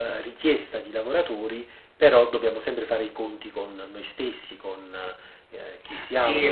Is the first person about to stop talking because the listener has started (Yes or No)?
Yes